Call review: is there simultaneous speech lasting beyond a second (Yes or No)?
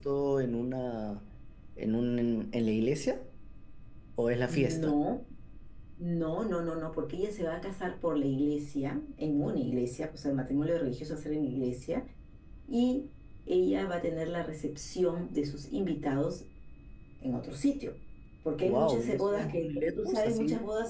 Yes